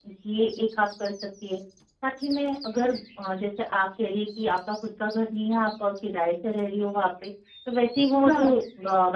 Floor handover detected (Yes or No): No